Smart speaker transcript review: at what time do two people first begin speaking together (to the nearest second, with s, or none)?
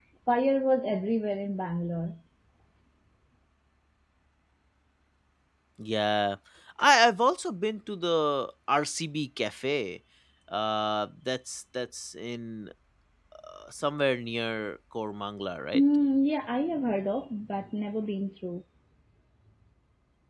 none